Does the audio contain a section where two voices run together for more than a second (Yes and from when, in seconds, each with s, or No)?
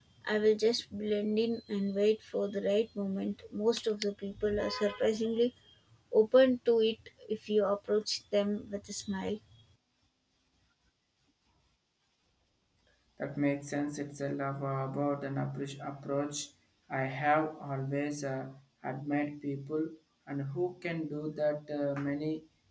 No